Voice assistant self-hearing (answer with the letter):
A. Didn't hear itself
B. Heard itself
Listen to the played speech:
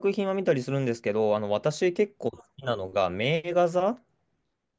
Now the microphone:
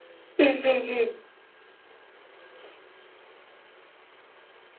A